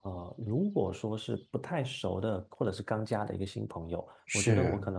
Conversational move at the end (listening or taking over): listening